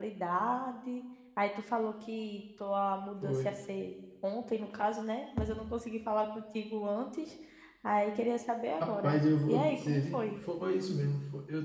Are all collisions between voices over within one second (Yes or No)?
No